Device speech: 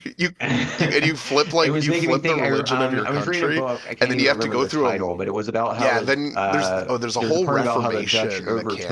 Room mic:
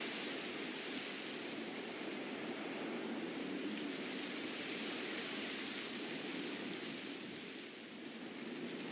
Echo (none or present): none